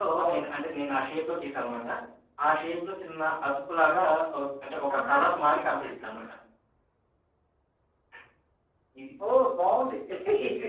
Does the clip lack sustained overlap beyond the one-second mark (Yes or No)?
Yes